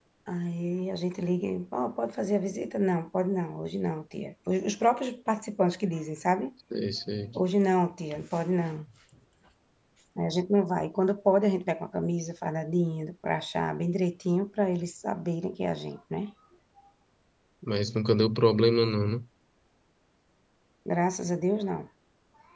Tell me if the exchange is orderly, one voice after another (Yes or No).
Yes